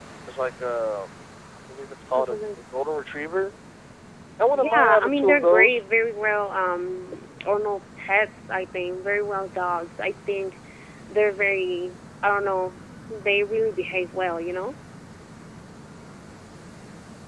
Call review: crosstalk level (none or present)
present